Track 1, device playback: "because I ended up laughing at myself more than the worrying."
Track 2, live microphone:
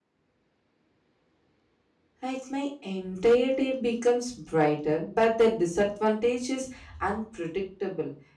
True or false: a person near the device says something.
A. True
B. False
A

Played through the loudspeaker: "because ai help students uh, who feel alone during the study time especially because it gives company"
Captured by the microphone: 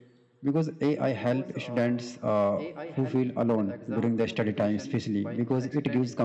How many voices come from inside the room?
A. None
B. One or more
B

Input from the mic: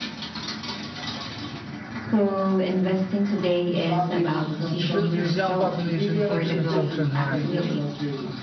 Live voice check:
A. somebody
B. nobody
A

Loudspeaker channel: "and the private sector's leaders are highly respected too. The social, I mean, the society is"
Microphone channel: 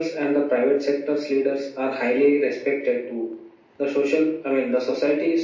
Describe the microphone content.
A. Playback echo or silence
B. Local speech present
A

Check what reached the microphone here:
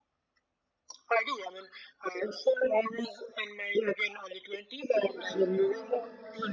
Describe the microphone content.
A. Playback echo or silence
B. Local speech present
B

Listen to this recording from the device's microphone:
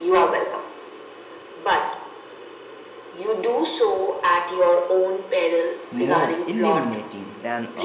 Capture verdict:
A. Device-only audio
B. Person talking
B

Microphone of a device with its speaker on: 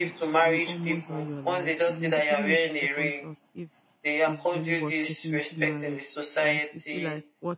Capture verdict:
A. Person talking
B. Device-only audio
A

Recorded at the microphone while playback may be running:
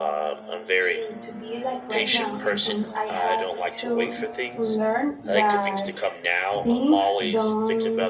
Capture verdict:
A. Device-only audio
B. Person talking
B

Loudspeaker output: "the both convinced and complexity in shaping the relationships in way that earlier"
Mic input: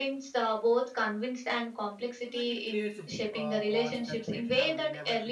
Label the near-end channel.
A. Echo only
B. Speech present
B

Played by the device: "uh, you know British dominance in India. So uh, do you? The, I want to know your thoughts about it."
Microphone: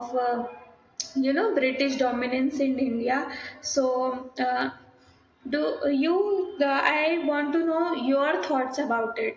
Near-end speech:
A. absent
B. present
A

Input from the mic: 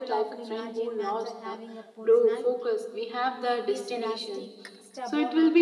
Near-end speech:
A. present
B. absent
A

